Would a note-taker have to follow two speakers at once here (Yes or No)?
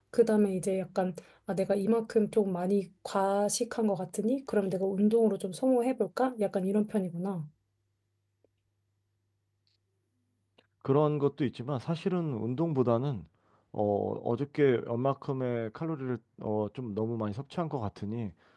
No